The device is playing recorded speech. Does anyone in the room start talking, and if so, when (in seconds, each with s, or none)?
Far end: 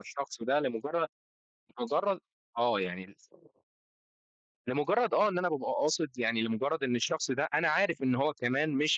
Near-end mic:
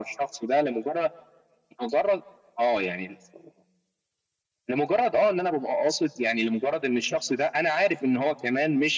none